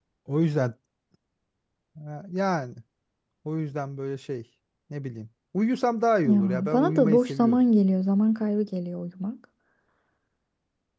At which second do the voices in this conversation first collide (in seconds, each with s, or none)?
6.2 s